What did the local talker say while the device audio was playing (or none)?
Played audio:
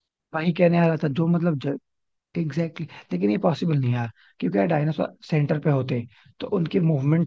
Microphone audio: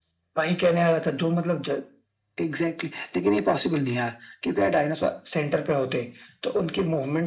none